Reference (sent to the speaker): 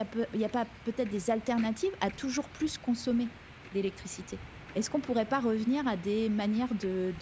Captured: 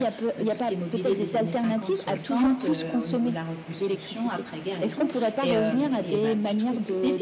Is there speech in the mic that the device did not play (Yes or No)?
Yes